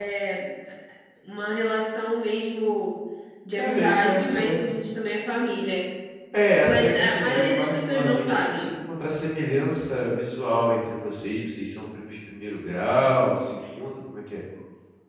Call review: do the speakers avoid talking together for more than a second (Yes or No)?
No